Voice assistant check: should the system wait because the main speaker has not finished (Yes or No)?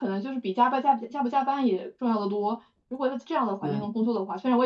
Yes